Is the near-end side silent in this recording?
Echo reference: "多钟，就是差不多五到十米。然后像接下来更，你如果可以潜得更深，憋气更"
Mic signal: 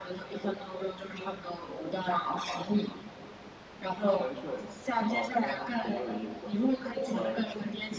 No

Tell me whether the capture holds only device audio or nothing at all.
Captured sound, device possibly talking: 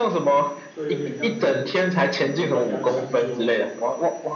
No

